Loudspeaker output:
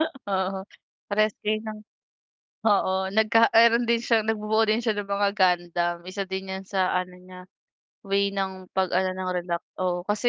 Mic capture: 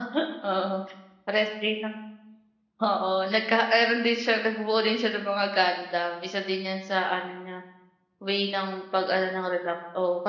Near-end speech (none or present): none